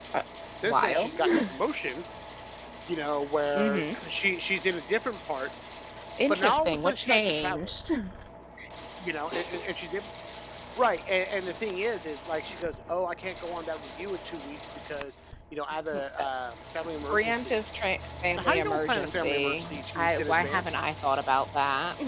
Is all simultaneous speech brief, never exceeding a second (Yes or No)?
No